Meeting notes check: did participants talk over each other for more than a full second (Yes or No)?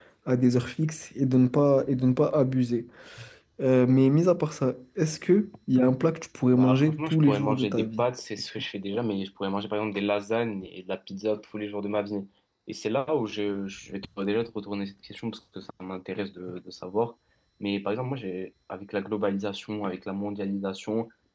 Yes